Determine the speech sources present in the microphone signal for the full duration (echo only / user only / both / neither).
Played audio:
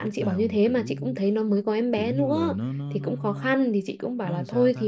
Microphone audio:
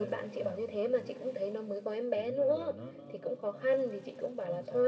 echo only